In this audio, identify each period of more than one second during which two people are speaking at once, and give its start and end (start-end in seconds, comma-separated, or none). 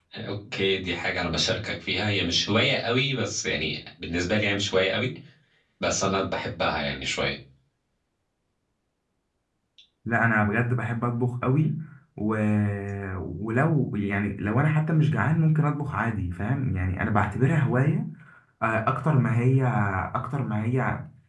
none